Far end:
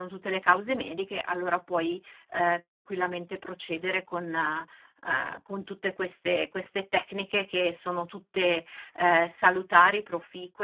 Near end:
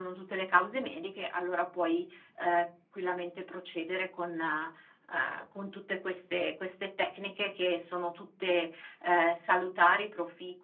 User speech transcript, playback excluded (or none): none